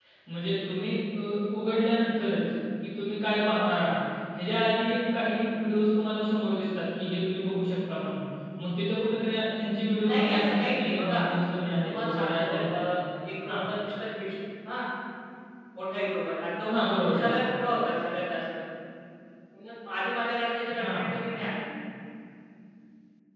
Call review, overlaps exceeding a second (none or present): present